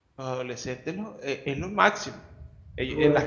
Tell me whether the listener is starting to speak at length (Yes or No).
No